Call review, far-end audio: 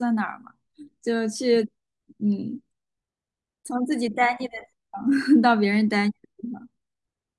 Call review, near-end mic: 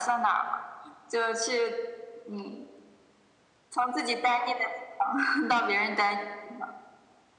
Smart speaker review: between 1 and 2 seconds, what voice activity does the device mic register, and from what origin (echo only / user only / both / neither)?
echo only